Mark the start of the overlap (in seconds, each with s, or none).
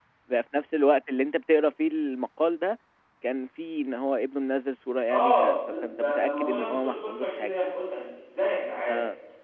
5.1 s